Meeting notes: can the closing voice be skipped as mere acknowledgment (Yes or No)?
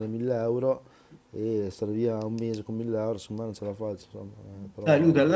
No